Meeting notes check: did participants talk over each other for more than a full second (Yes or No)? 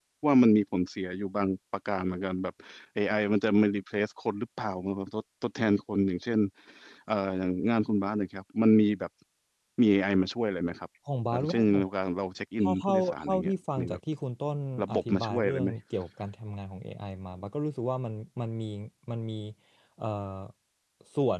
Yes